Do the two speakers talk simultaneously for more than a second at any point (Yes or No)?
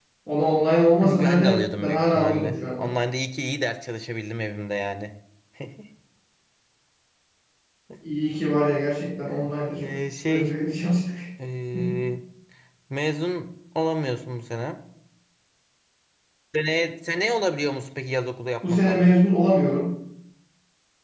Yes